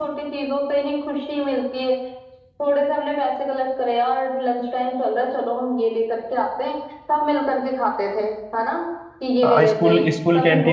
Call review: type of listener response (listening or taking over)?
taking over